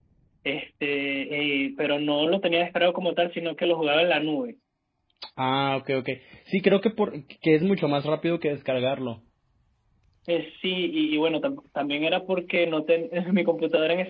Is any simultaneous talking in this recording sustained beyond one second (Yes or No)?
No